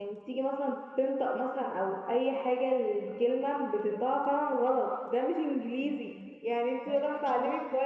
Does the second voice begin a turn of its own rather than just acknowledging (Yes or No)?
No